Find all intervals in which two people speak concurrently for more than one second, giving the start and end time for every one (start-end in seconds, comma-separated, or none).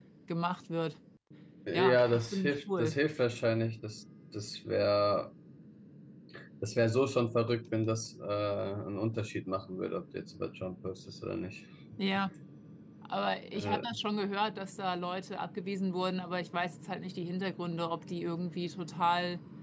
1.7-3.0